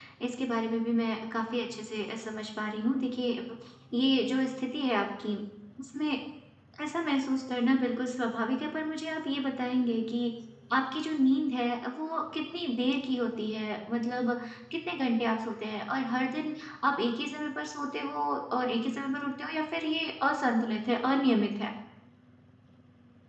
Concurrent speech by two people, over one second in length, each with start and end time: none

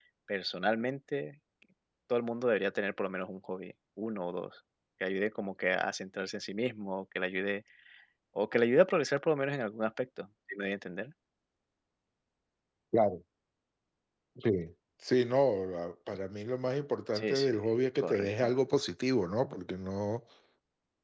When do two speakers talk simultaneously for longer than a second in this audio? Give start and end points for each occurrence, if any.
none

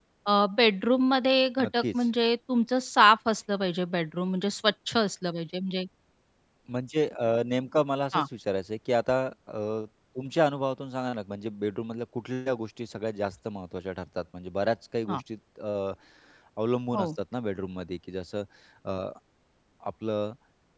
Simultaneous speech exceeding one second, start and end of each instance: none

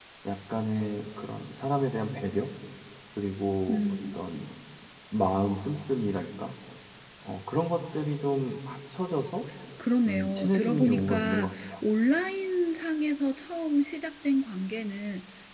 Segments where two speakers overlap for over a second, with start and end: 10.1-11.7

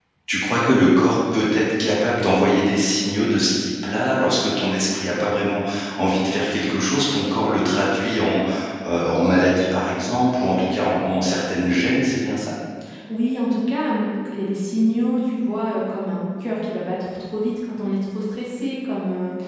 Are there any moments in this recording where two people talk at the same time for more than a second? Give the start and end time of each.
none

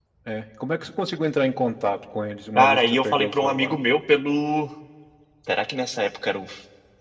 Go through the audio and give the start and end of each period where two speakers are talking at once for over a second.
2.5-3.8

